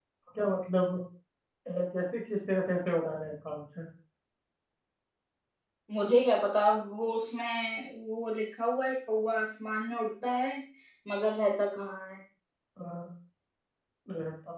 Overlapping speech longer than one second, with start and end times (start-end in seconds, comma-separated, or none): none